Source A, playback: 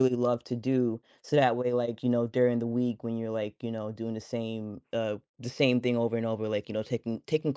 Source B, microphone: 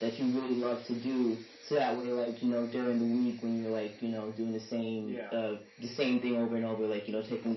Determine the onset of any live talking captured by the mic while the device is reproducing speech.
5.0 s

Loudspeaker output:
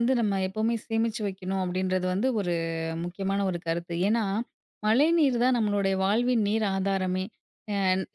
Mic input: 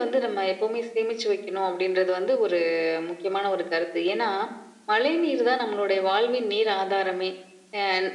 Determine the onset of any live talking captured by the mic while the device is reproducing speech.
none

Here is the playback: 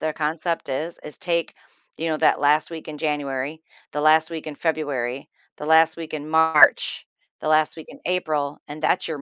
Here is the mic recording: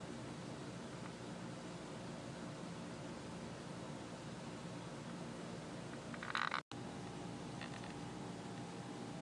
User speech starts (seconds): none

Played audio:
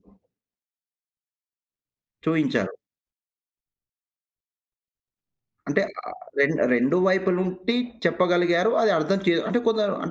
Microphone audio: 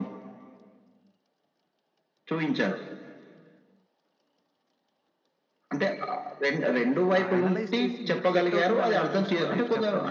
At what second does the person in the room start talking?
7.2 s

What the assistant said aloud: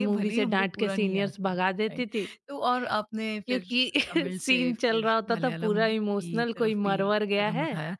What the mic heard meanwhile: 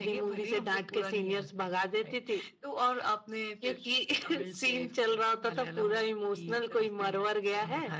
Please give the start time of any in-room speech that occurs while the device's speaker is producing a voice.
none

